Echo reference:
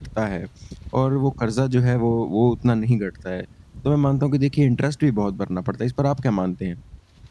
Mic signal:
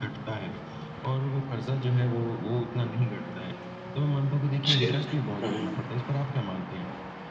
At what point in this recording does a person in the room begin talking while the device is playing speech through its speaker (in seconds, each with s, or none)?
4.6 s